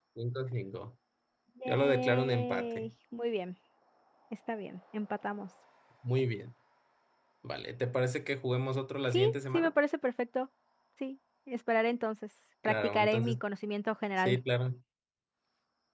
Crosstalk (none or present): present